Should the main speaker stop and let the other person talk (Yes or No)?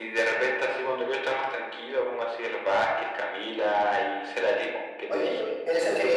Yes